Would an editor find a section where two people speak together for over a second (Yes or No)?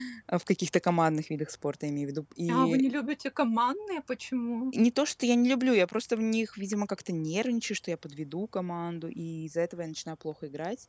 No